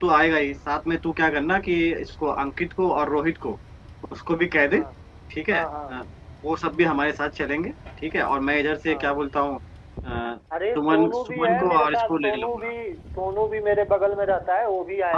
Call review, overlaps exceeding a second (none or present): present